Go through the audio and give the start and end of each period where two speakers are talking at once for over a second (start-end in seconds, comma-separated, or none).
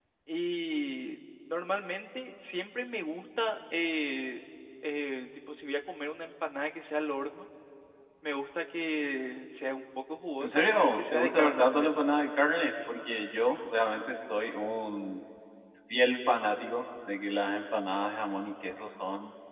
10.4-11.9